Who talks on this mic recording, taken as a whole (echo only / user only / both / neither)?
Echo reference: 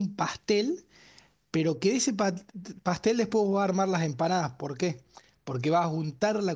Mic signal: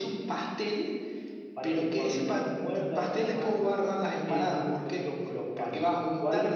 both